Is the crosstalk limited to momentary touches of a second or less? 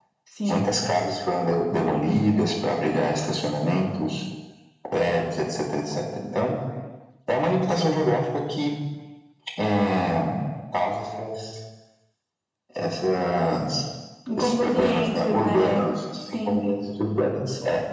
No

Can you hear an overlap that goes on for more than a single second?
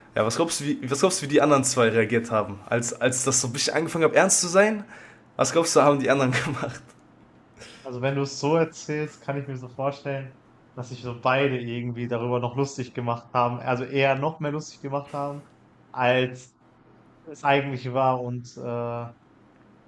No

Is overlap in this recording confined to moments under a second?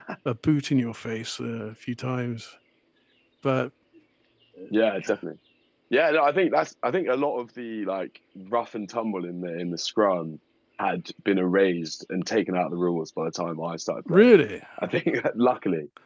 Yes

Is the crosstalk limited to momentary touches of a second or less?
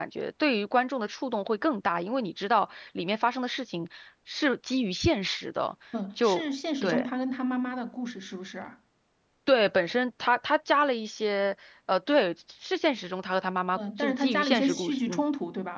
No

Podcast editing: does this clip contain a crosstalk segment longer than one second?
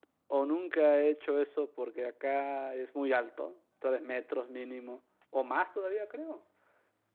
No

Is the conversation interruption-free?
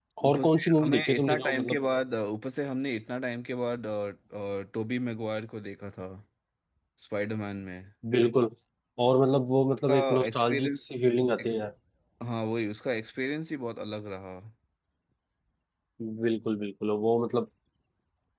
No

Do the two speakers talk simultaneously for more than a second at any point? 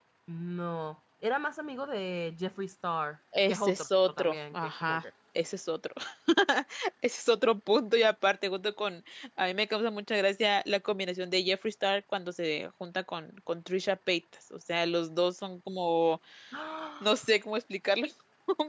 Yes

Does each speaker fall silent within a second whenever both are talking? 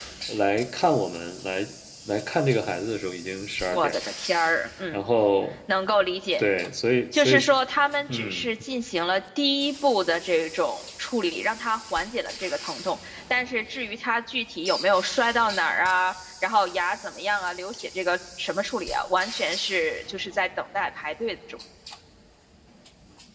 Yes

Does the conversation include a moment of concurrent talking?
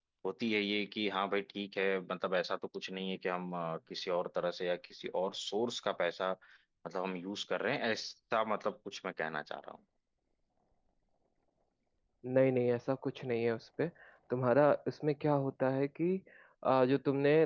No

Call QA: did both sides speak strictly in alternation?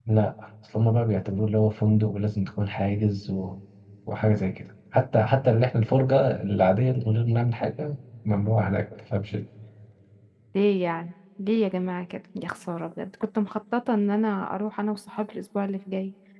Yes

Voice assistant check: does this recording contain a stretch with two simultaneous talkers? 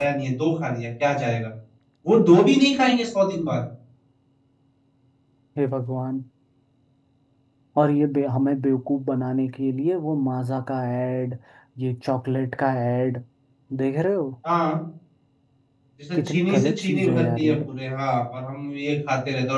Yes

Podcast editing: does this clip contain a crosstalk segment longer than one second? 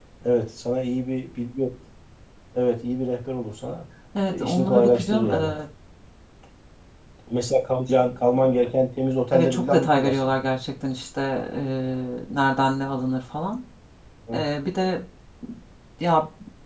Yes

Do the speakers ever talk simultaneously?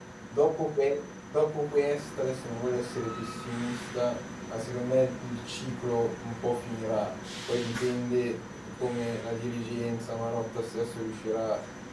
No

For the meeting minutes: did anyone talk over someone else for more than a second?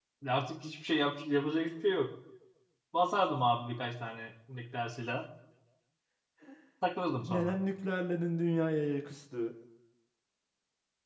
No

